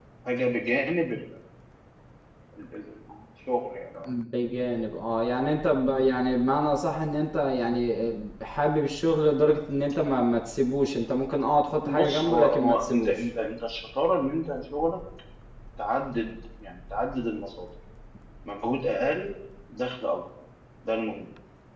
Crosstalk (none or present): present